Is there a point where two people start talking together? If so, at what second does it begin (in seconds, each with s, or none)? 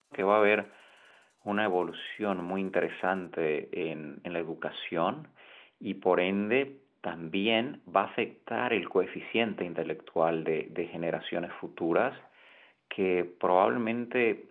none